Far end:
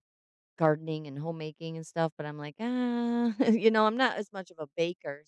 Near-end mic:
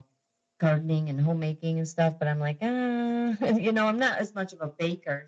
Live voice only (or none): none